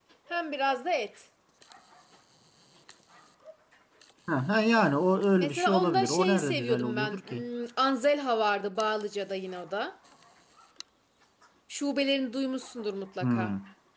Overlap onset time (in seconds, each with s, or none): 5.4 s